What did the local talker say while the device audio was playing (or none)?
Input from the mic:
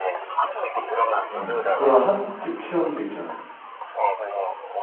음, 그런 한옥집 체험도 있잖아.